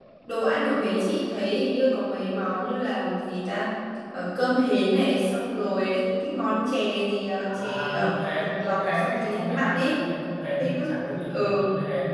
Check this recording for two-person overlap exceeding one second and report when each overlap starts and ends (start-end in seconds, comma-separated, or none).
7.4-10.0